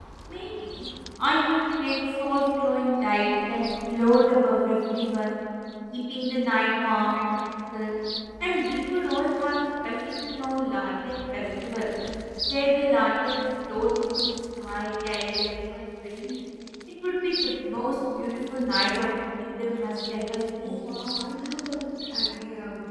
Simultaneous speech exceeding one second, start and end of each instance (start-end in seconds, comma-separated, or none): none